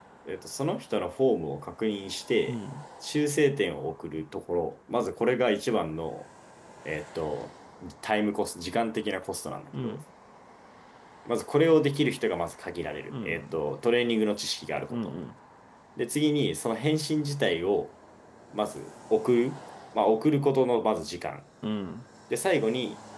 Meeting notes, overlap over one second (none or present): none